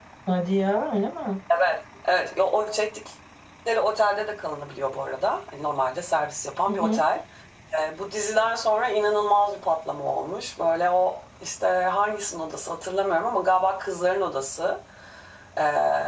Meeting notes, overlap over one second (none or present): none